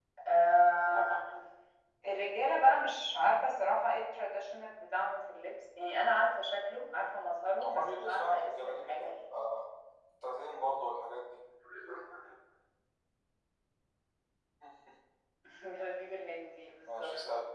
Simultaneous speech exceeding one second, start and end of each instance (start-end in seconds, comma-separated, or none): 7.5-9.2